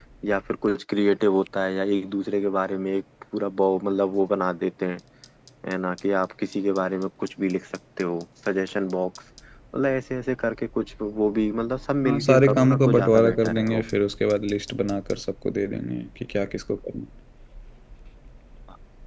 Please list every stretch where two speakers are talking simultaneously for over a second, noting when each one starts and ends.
12.0-13.8

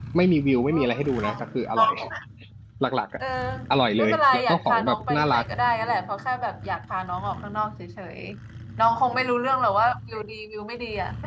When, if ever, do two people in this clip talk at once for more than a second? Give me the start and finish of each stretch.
4.0-5.5

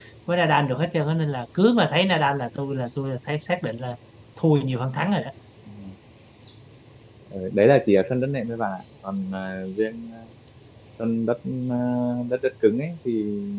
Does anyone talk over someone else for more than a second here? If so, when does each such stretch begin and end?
none

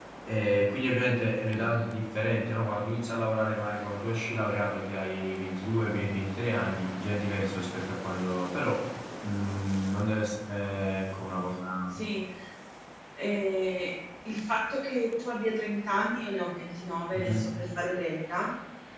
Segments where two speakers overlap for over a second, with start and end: none

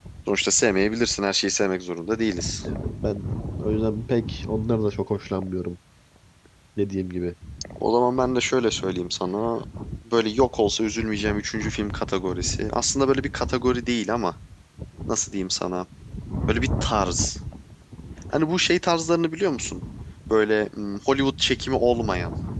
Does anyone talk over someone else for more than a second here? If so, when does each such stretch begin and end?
none

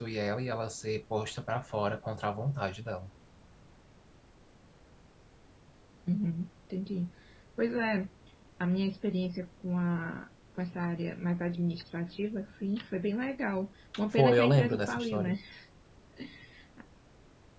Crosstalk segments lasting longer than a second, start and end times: 14.1-15.4

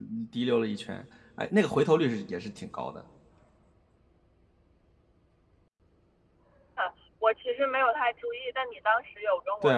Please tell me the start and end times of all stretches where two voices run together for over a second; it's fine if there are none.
none

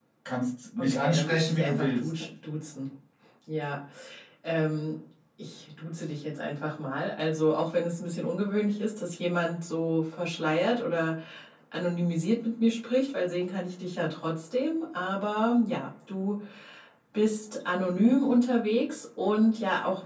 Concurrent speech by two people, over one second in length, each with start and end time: 0.8-2.3

